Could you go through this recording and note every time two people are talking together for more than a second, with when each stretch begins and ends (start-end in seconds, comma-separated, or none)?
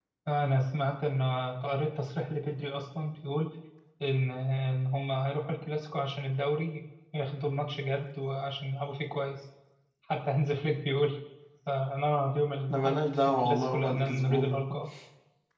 12.7-14.8